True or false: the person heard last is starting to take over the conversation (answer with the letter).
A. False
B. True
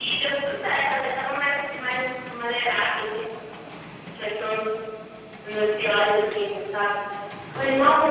A